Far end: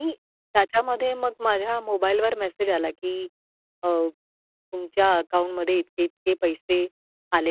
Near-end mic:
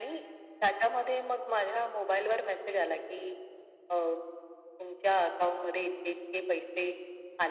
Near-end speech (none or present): none